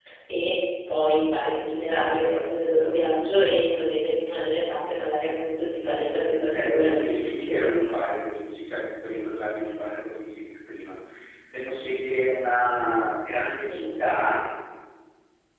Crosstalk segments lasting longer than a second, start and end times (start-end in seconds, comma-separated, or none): 6.4-7.8